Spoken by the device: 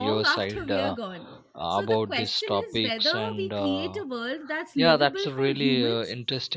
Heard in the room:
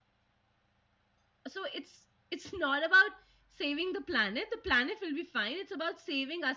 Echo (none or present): none